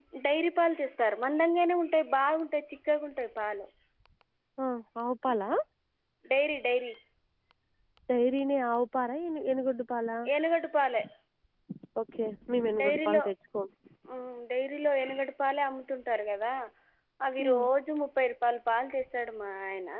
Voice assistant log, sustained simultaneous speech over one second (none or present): none